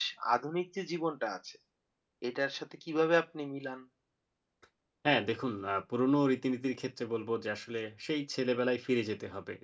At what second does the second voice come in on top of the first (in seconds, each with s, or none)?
none